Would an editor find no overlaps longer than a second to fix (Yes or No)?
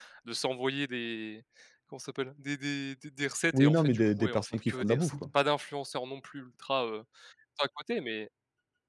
No